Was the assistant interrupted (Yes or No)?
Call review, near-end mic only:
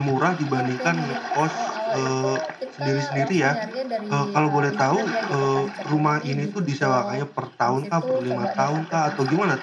Yes